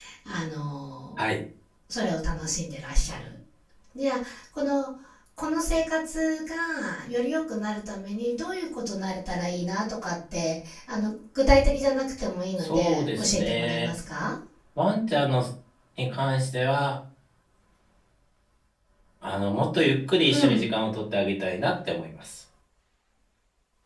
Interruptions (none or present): present